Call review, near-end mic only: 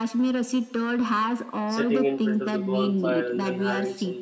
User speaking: Yes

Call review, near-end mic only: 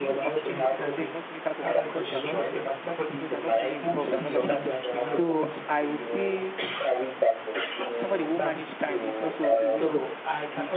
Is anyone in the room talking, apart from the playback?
Yes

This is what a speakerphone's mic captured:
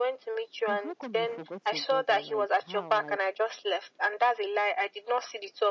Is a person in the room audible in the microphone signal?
Yes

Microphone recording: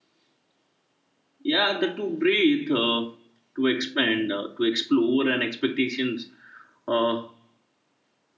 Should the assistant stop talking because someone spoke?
Yes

